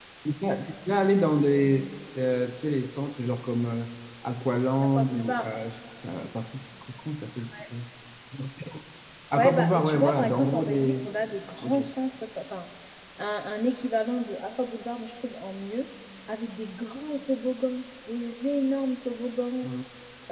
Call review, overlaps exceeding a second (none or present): present